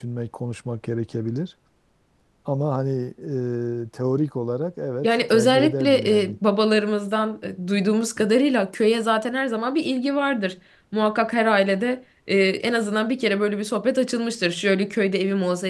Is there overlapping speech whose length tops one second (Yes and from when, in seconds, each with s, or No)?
Yes, from 5.0 s